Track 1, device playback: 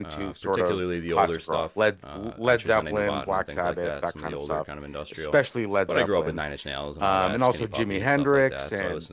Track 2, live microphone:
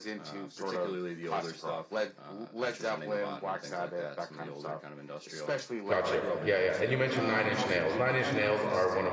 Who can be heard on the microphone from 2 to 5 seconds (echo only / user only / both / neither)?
echo only